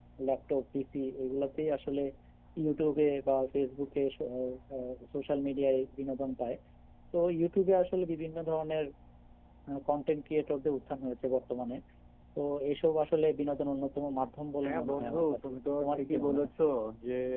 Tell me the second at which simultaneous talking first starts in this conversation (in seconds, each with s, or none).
14.6 s